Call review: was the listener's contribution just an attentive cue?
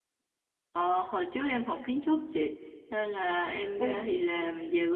Yes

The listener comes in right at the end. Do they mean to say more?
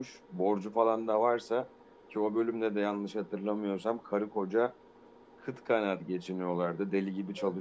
No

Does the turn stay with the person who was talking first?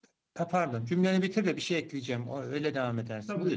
No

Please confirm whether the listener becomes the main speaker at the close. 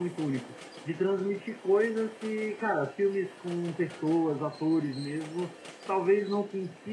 No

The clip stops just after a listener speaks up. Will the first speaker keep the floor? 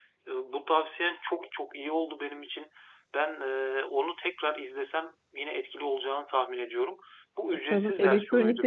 No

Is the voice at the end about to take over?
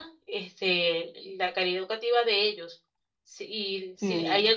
No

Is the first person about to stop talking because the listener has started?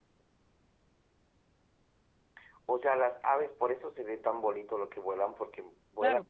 Yes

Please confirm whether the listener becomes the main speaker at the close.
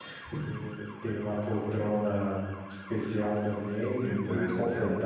No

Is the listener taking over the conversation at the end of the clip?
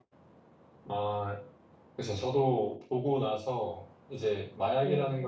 No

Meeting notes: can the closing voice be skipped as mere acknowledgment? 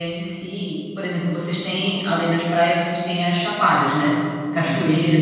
Yes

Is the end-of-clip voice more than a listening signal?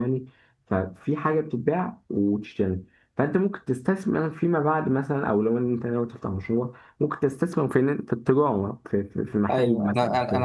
Yes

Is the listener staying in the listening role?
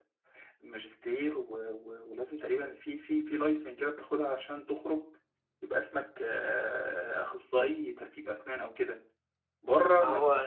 Yes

